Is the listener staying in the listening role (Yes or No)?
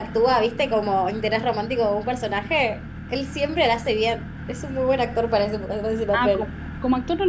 No